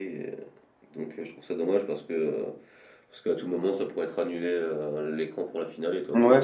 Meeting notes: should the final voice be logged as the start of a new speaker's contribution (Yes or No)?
Yes